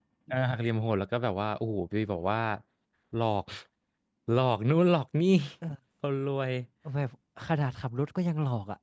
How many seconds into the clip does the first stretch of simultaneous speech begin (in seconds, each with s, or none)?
none